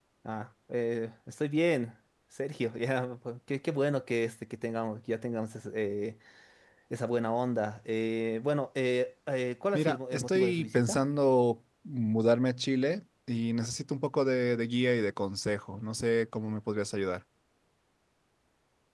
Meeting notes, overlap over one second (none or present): present